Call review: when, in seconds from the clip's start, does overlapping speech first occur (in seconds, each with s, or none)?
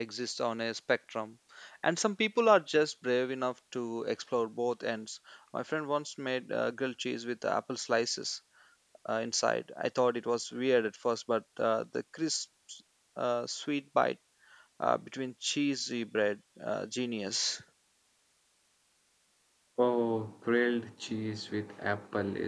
none